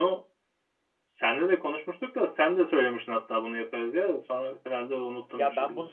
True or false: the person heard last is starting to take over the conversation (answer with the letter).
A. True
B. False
A